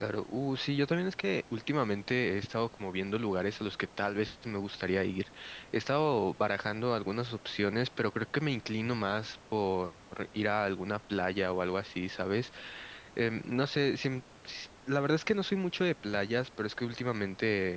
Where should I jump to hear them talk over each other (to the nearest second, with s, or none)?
none